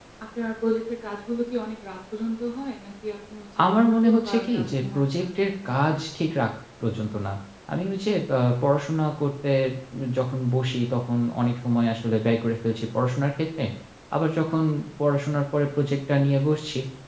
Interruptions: present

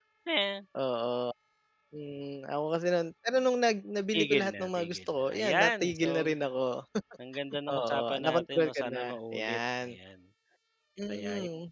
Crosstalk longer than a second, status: present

